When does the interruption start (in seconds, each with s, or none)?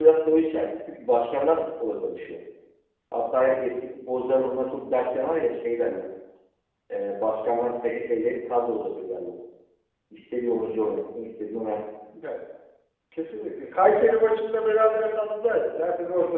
none